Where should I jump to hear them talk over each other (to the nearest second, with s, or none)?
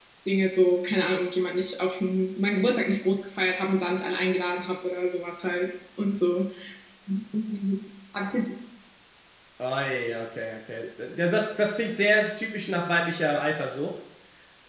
none